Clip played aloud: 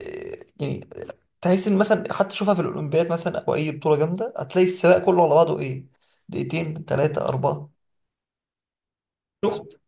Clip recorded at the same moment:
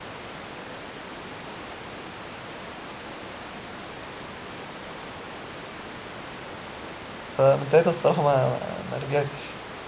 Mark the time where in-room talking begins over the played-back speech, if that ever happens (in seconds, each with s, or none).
7.2 s